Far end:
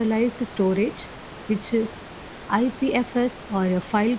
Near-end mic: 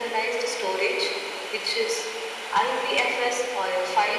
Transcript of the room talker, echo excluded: none

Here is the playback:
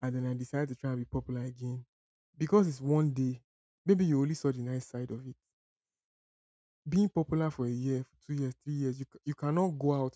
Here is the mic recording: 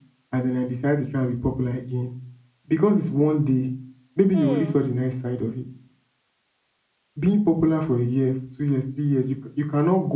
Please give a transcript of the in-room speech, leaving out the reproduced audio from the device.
Hmm.

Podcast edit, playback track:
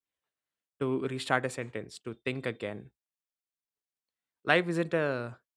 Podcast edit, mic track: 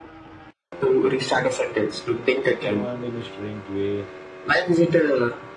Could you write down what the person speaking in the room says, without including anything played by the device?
You know, and in a strange way,

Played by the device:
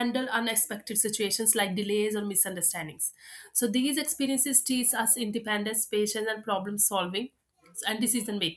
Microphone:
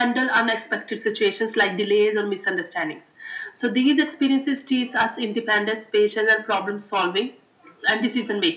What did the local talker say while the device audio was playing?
none

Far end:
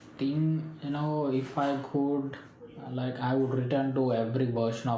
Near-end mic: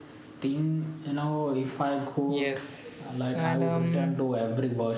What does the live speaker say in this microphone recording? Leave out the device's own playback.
yes and um

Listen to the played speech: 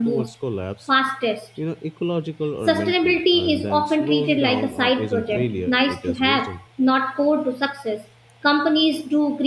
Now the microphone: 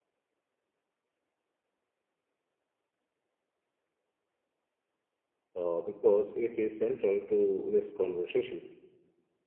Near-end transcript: uh, because it is central to this conversation.

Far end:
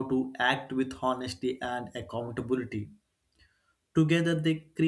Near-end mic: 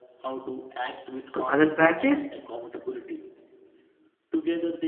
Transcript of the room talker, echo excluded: to other practice,

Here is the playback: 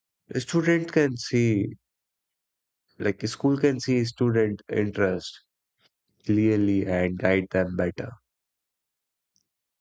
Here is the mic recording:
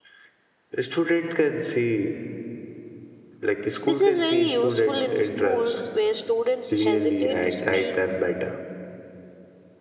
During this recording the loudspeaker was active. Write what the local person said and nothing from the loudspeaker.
This is very useful in schools where students hesitate to speak.

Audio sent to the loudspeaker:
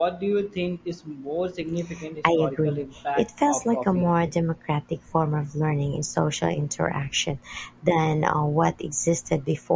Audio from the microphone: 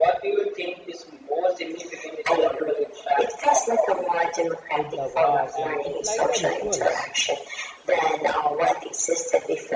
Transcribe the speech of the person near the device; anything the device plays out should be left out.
at the bar, and it's like a rituals.

